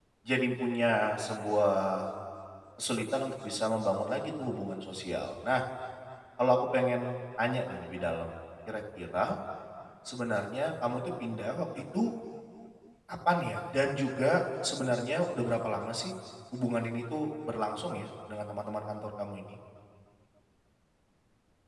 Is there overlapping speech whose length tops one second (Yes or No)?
No